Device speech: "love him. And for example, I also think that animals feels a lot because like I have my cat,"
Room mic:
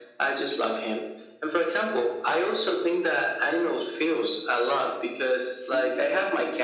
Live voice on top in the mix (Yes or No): No